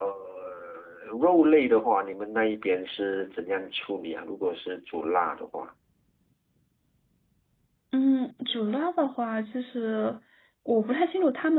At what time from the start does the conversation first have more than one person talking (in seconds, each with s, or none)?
none